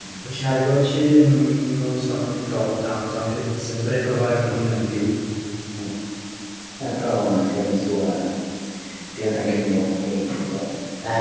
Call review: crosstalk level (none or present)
none